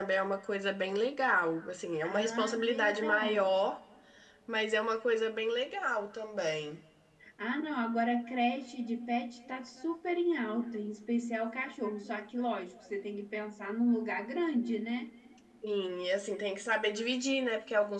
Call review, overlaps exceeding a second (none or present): present